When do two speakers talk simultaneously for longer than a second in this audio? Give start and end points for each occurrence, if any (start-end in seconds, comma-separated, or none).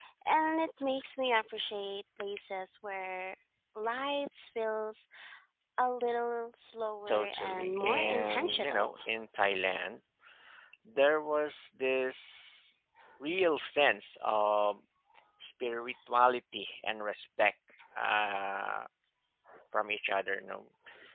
7.1-8.9